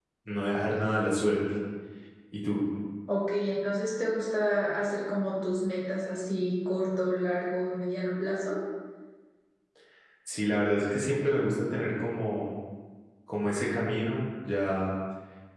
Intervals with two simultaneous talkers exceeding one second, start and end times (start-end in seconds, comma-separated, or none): none